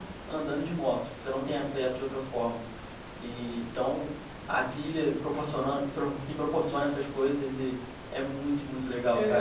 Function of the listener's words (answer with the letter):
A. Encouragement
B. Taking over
B